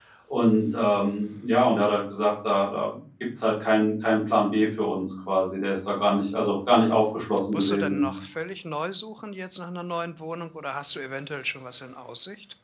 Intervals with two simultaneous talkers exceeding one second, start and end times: none

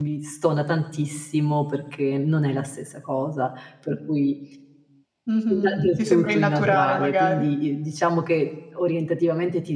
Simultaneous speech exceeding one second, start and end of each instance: 5.5-7.4

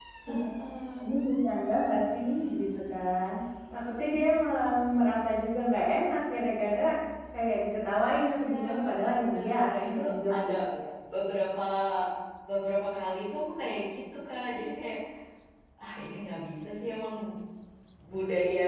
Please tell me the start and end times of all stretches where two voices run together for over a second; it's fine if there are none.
8.2-10.5

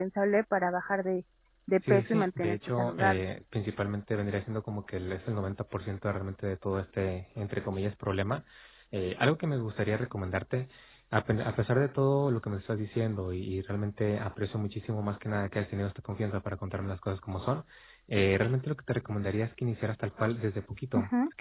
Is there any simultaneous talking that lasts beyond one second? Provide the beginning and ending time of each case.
1.9-3.2

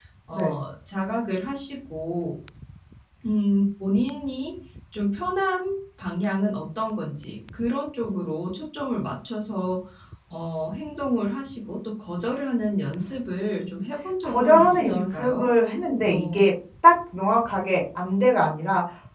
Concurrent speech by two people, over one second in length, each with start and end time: 14.2-15.5

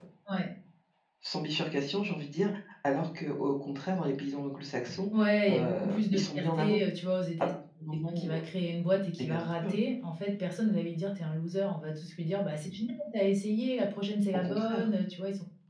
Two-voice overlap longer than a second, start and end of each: 5.5-6.8

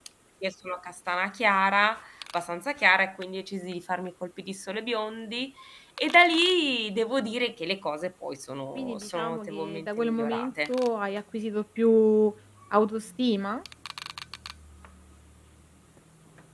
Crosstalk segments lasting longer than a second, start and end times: 8.8-10.7

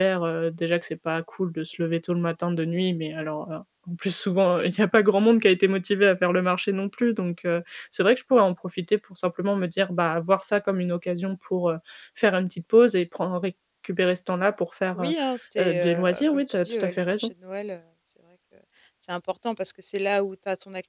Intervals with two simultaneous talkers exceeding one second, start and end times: 15.6-17.3

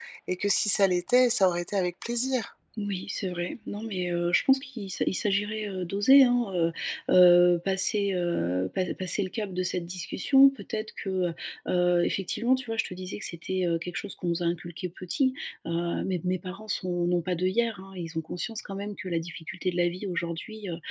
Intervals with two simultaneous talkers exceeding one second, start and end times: none

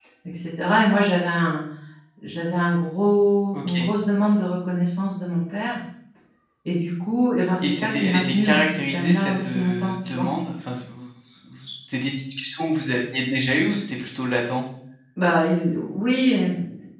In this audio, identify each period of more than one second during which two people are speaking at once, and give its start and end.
7.6-10.3

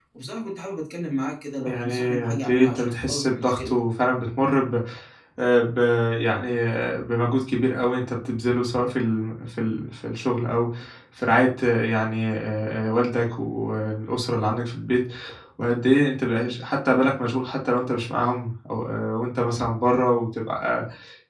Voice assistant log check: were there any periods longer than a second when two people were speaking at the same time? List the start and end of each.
1.6-3.7

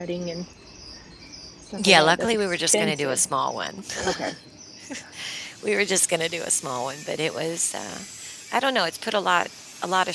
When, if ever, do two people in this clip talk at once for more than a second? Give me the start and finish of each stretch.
1.8-3.2

